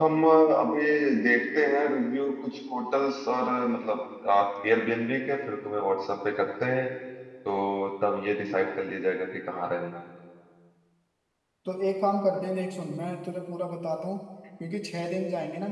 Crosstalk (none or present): none